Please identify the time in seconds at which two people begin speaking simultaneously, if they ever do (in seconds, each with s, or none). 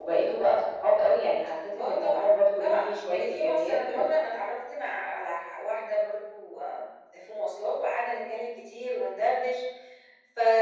1.8 s